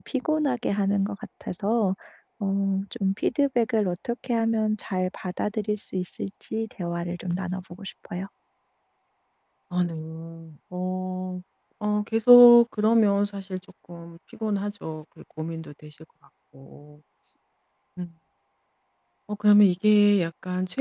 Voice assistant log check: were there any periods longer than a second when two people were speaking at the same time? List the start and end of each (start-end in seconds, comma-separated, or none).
none